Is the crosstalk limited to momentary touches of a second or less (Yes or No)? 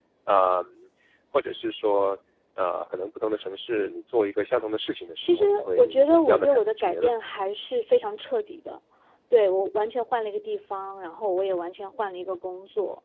No